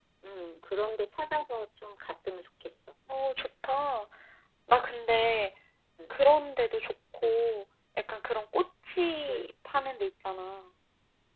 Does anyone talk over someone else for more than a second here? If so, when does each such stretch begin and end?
none

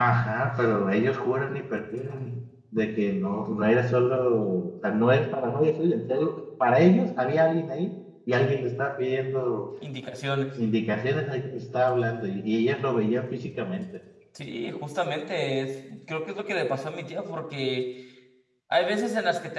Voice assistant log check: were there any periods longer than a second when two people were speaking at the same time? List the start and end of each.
none

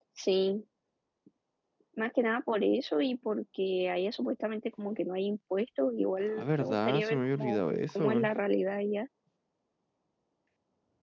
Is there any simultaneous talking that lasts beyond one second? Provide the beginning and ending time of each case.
6.4-8.3

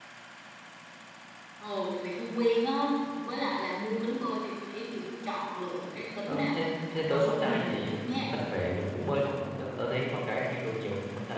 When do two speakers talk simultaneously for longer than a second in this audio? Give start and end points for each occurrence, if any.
6.2-8.3

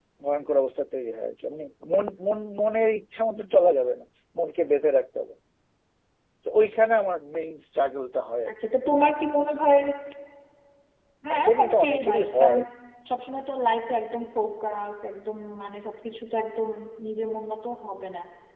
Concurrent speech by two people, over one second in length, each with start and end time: 11.3-12.6

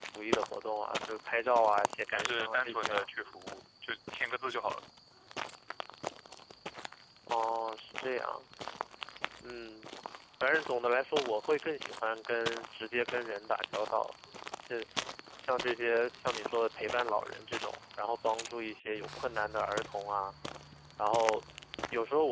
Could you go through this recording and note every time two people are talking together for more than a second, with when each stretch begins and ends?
1.7-3.1

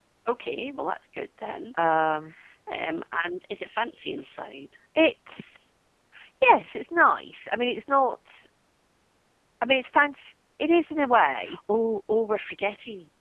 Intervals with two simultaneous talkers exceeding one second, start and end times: none

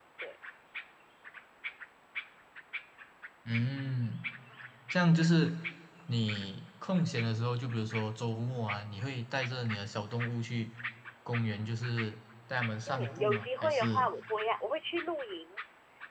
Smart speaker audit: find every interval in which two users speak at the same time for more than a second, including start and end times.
12.9-14.1

